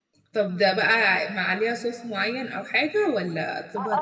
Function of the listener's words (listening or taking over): taking over